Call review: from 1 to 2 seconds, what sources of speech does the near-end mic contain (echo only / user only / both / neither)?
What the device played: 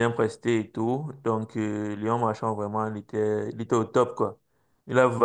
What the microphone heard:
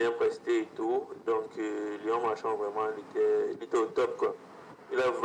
echo only